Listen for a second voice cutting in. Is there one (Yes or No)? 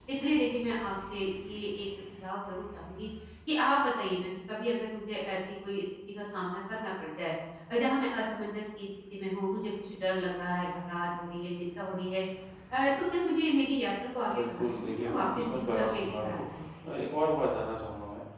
Yes